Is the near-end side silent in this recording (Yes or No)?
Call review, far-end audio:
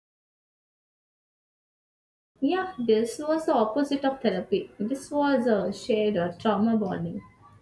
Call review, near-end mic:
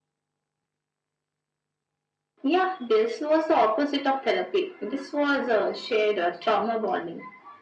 Yes